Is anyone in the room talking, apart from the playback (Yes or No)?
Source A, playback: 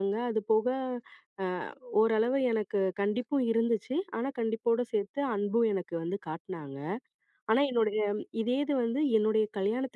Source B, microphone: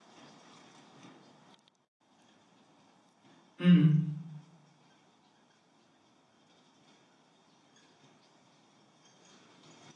Yes